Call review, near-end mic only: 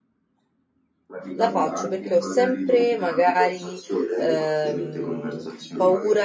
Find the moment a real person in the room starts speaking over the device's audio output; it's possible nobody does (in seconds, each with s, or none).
1.4 s